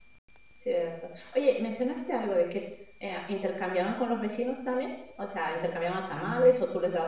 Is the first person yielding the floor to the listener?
No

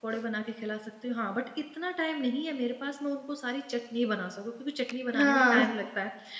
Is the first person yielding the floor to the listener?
No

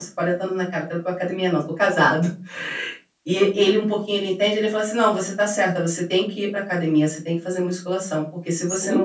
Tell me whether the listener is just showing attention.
No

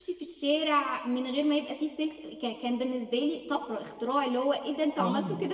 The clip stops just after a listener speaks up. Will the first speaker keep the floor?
No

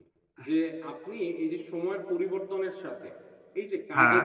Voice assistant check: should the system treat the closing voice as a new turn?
No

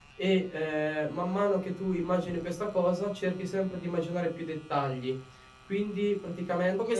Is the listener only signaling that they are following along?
No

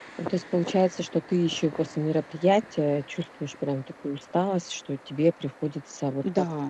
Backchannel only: Yes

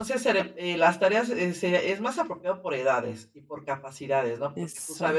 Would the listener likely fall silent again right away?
Yes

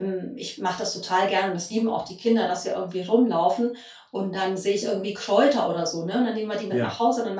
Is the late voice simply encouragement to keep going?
Yes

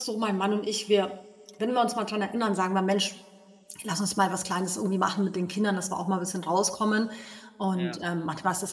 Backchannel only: Yes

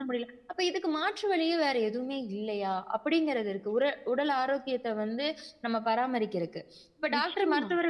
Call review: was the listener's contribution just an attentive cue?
Yes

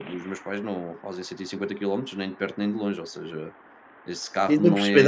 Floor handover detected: Yes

